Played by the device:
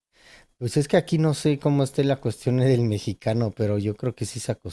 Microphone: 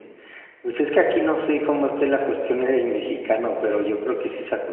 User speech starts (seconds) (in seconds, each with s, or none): none